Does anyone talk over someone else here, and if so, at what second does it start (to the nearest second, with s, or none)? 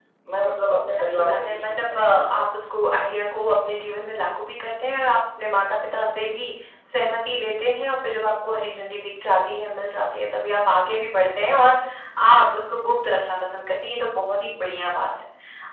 1 s